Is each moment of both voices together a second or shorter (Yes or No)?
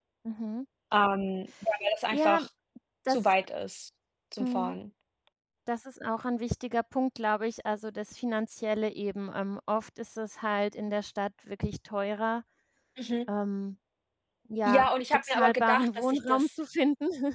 No